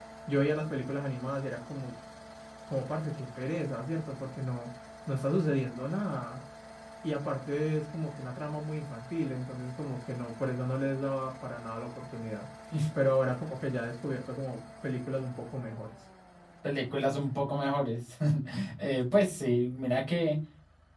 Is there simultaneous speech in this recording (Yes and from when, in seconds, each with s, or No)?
No